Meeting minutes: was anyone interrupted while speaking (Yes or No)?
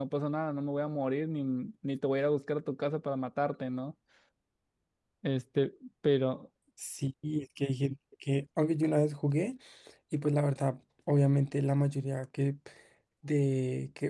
No